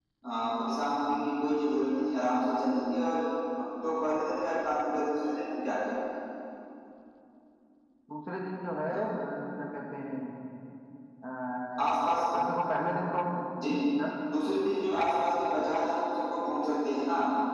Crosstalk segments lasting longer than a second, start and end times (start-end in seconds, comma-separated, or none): none